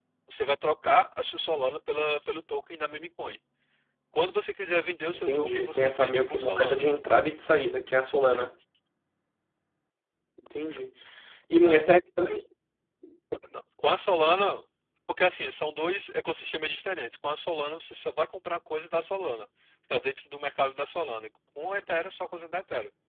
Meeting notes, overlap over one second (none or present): present